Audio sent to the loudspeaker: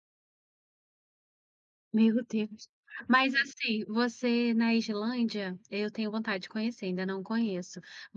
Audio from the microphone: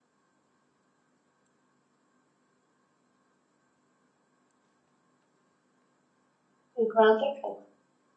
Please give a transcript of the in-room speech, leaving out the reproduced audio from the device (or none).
50.